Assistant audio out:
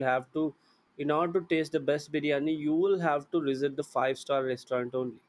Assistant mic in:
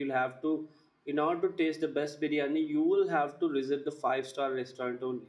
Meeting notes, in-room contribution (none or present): none